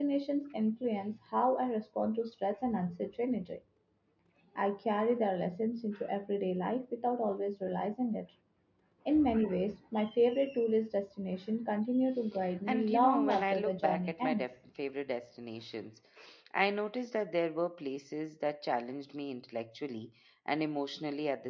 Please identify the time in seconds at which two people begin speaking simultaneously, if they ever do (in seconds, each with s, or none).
12.7 s